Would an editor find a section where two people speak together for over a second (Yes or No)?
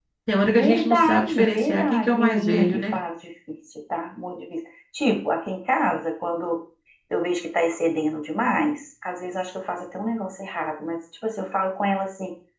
Yes